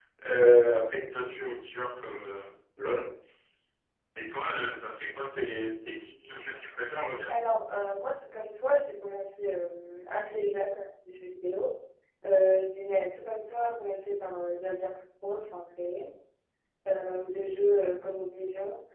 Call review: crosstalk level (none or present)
none